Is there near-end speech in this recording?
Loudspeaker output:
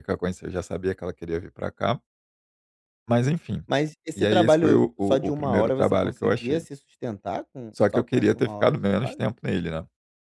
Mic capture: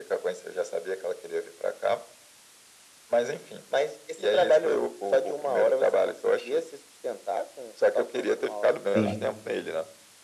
Yes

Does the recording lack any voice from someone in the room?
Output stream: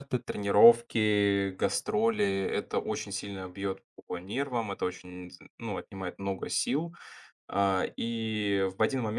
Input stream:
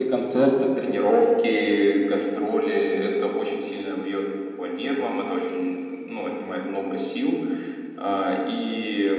Yes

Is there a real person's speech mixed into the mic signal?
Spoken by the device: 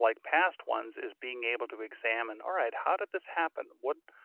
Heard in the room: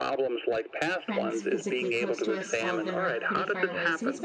Yes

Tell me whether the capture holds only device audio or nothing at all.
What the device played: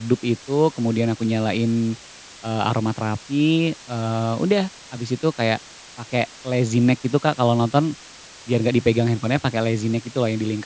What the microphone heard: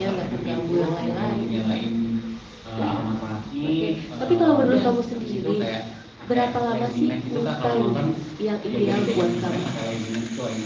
No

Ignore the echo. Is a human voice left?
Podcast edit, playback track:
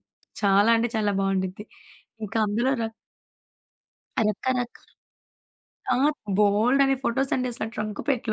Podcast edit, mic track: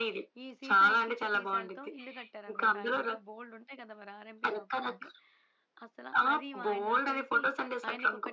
Yes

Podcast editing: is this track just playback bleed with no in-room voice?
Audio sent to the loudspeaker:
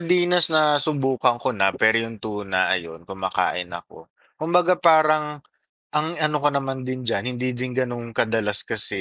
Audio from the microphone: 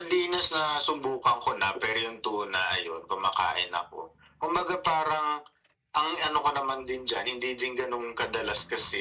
Yes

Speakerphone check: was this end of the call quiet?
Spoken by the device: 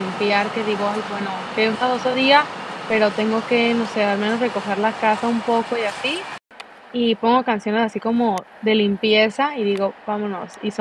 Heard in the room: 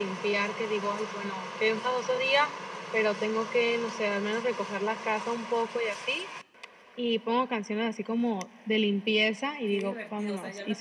No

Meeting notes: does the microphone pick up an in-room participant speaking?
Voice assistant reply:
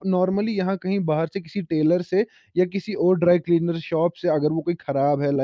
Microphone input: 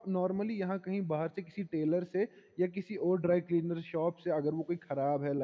No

